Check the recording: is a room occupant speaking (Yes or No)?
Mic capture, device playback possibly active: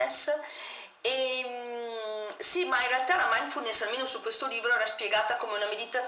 No